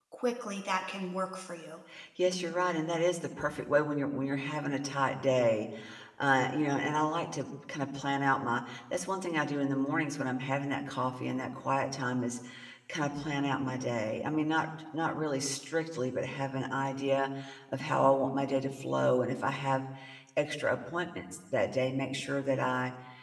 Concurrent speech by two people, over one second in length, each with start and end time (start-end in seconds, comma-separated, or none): none